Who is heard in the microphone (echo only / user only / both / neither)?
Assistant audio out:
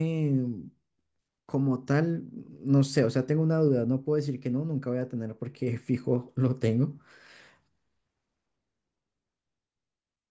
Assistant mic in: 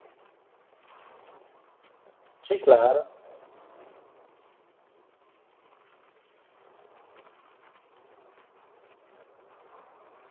user only